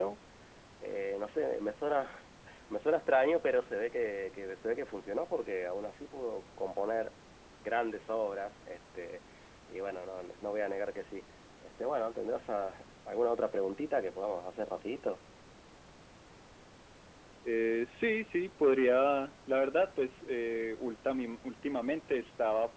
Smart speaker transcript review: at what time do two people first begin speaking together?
none

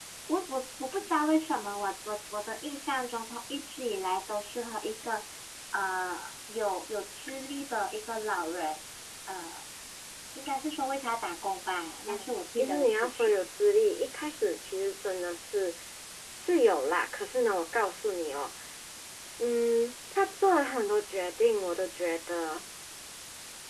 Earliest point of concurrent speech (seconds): 12.1 s

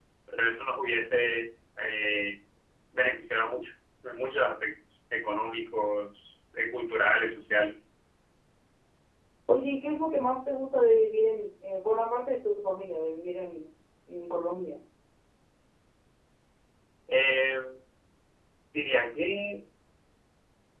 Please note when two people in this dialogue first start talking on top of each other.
none

